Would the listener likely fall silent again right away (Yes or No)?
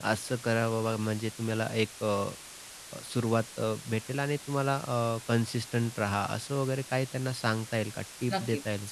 No